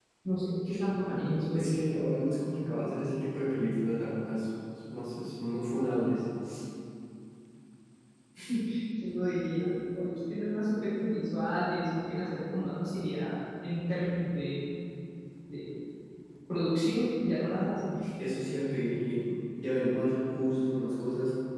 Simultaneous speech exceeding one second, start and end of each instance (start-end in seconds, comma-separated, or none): none